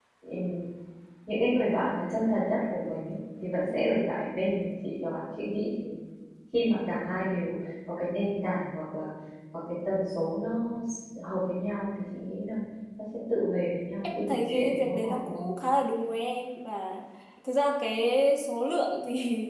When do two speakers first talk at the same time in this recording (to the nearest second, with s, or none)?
14 s